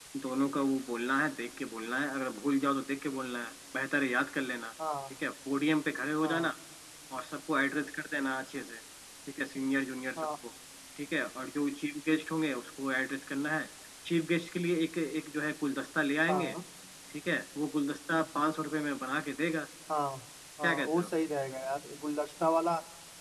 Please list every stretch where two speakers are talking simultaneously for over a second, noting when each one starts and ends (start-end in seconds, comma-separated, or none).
none